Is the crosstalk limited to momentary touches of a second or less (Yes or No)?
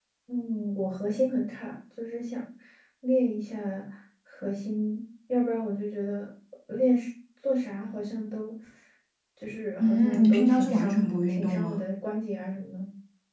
No